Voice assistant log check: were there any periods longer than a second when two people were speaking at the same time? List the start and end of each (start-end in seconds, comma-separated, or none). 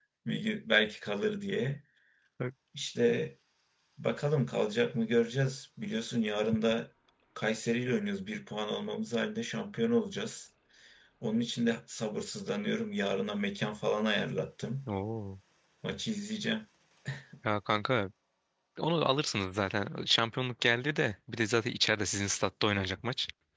none